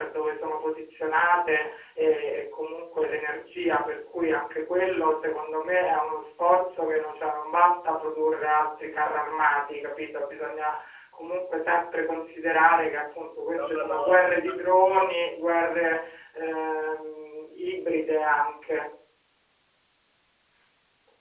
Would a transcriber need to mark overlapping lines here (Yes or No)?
Yes